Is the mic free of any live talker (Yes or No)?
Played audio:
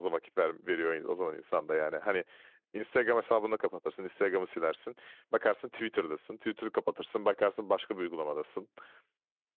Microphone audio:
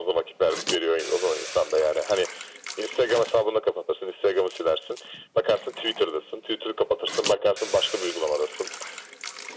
Yes